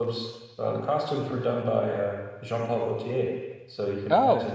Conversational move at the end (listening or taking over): listening